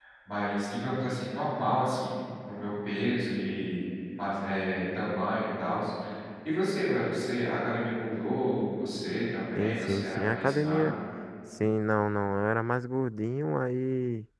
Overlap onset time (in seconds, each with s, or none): 9.6 s